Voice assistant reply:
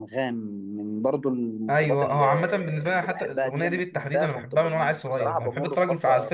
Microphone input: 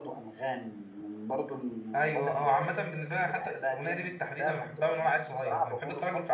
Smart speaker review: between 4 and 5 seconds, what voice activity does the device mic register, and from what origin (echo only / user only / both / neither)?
echo only